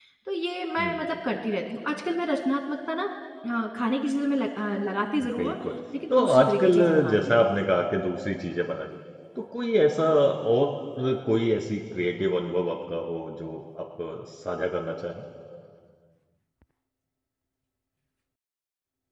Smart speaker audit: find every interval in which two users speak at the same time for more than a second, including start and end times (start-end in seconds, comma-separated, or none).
6.1-7.5